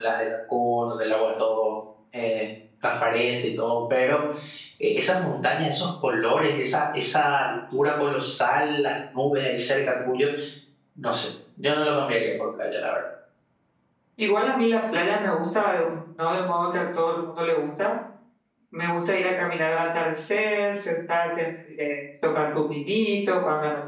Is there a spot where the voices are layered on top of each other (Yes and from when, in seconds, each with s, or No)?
No